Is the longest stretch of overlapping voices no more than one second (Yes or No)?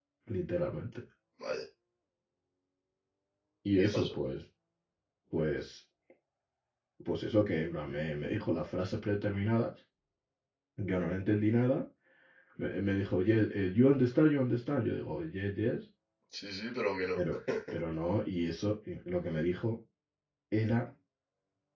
Yes